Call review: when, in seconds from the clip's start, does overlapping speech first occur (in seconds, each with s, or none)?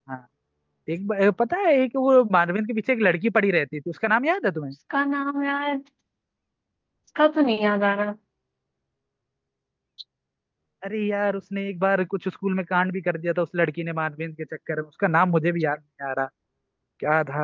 none